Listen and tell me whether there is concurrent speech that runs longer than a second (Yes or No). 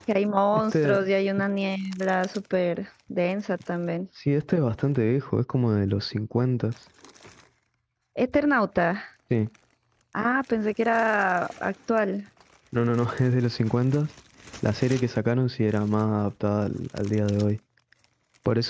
No